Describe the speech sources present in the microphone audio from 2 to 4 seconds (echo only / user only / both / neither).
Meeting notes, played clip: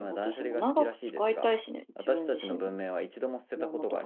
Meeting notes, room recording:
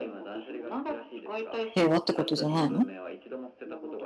both